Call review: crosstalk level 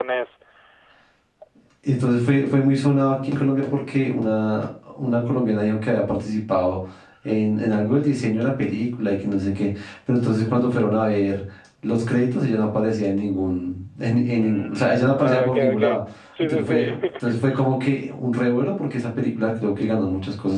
present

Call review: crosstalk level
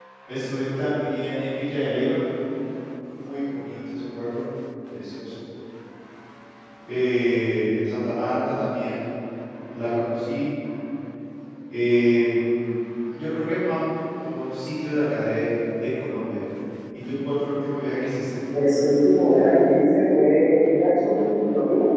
none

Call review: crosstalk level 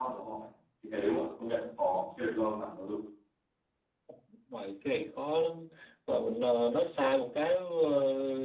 none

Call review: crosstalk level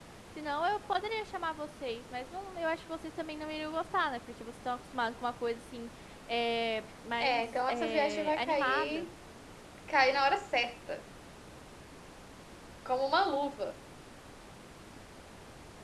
present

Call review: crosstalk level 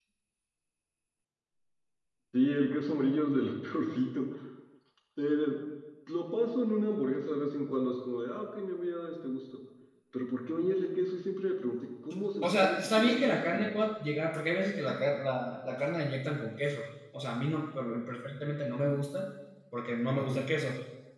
present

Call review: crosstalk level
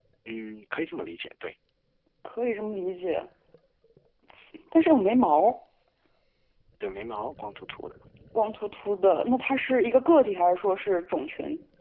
none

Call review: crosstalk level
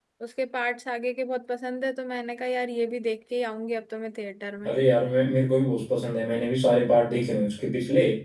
none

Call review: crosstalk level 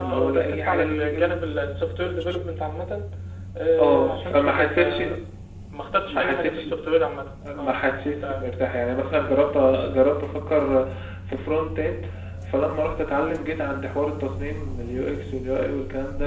present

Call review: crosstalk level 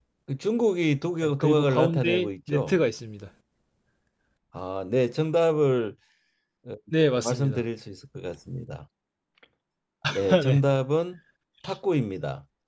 present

